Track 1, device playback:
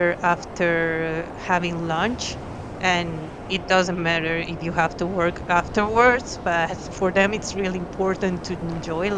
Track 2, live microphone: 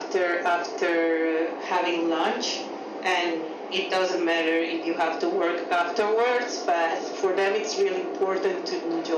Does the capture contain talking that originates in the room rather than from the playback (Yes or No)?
No